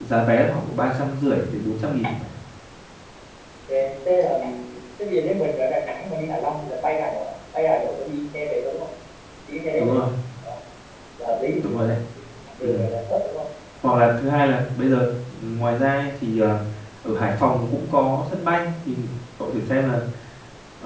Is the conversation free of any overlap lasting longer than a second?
Yes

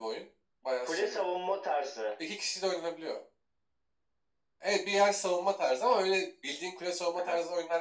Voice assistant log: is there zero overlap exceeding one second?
Yes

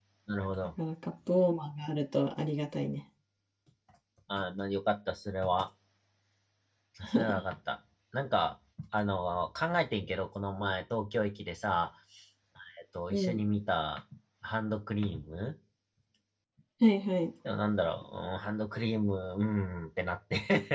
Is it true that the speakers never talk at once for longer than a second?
Yes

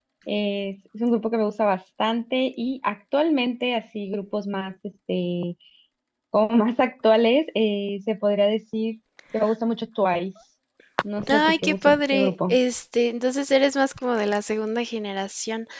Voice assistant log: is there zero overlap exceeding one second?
No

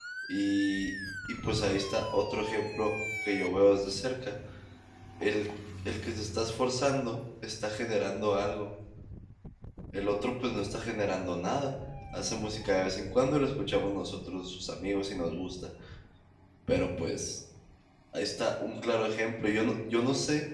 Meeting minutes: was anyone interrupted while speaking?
No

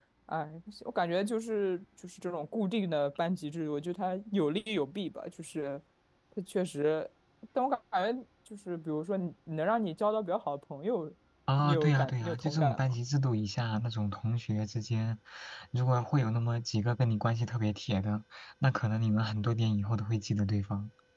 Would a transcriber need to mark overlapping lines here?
Yes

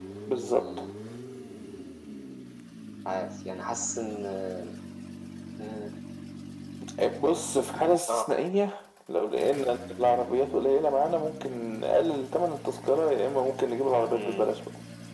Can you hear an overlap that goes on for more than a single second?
No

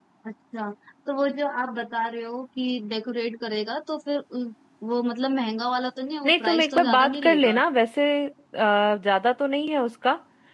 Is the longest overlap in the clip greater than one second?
Yes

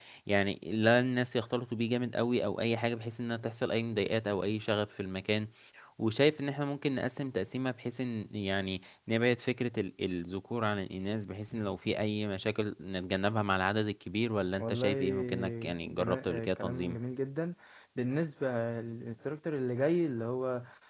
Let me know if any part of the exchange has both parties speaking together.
Yes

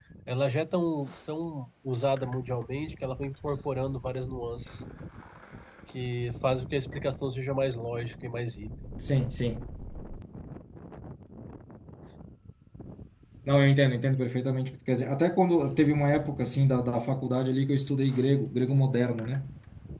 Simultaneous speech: No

